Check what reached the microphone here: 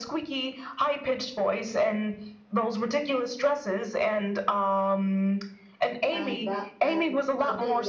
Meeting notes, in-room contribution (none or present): present